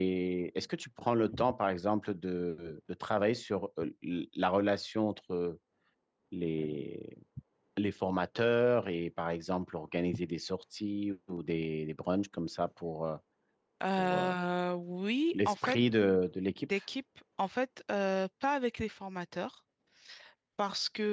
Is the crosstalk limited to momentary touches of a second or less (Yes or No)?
Yes